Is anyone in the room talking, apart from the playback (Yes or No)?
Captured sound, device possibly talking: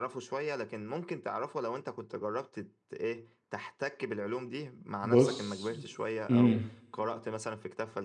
Yes